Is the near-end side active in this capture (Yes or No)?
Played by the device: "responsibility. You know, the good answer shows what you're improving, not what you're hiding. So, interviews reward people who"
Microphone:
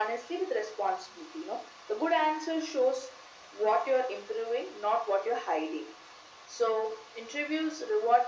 No